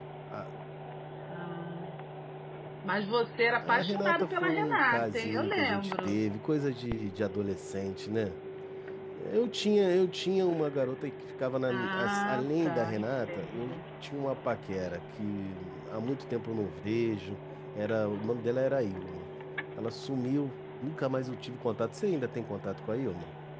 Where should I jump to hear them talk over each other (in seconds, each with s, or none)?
3.6 s